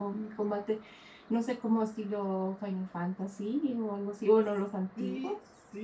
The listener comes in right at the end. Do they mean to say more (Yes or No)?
Yes